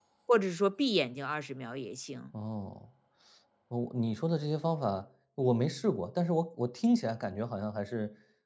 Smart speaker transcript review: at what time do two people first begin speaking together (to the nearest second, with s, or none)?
none